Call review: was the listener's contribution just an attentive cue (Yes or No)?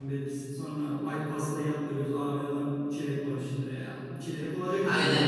No